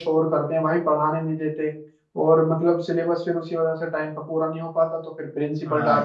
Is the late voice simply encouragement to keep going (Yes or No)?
No